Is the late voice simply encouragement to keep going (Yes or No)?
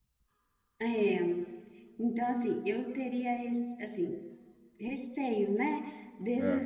Yes